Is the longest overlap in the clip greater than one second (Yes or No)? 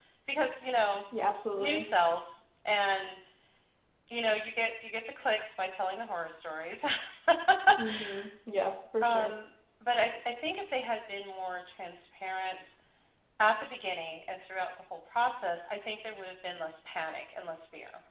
No